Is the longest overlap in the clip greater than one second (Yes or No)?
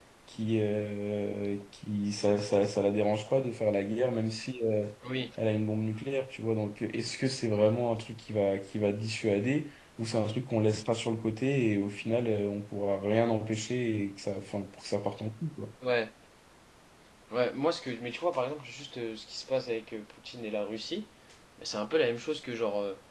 No